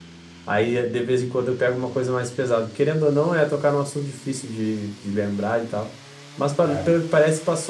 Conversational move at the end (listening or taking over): listening